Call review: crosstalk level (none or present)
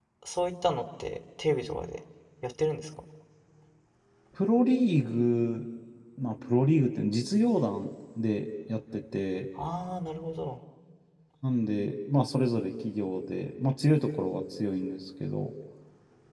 none